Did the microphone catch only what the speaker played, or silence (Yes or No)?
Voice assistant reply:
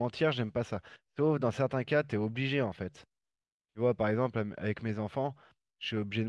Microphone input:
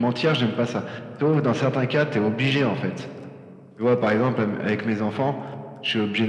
Yes